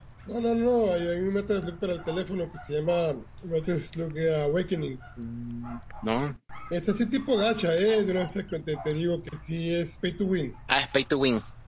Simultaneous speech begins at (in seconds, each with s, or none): none